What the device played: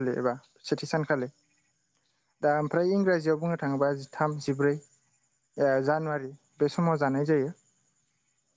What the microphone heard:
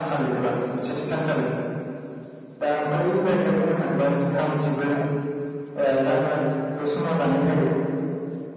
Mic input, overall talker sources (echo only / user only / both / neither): both